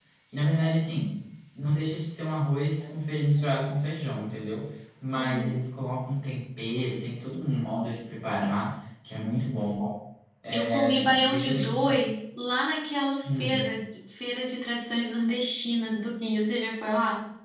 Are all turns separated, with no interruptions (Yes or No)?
No